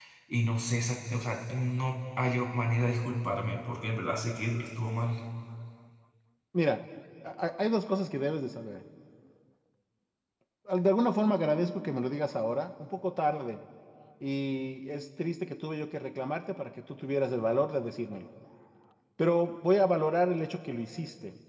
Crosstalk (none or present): none